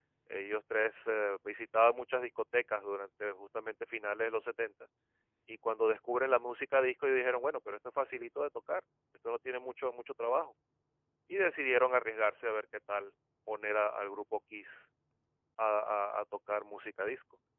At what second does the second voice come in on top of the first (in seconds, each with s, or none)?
none